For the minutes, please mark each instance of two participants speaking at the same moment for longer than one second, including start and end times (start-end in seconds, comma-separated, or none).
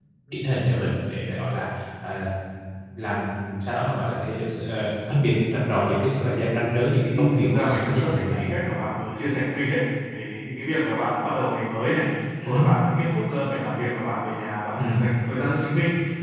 7.1-8.4